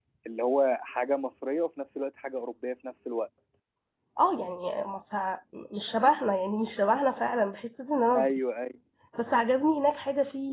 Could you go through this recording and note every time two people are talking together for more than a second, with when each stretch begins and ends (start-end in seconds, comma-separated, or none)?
none